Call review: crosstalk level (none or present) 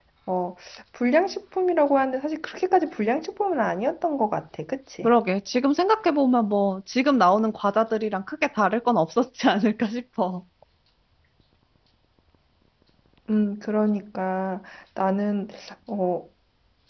none